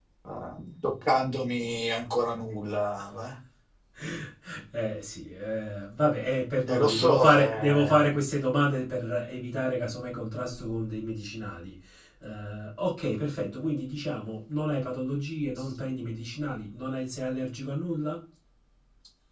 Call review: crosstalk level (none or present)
present